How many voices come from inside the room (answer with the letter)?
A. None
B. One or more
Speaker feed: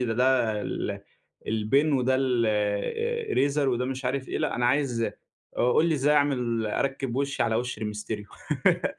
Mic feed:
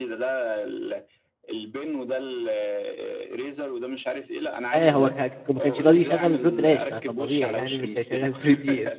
B